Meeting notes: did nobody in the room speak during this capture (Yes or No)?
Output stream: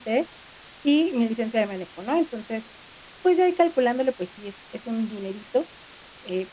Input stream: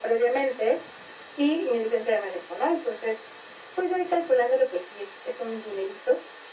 Yes